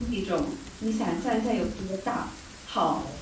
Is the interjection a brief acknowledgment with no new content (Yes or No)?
Yes